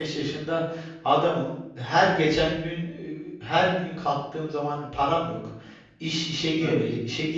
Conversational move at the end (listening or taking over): listening